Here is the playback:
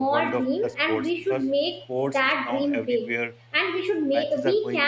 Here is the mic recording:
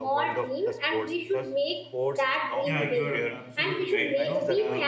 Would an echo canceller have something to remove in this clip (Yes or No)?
Yes